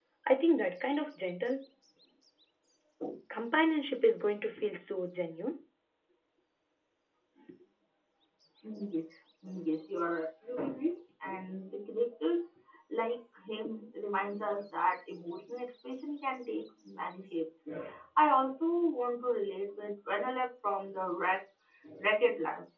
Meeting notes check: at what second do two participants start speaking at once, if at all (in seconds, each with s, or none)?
none